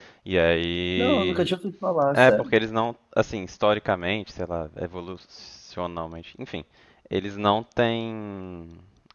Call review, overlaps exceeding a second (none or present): none